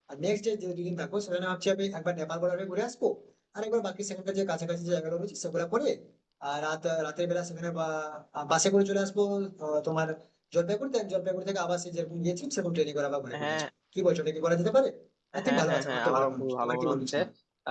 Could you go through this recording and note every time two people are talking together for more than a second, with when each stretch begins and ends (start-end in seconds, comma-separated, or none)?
15.5-17.2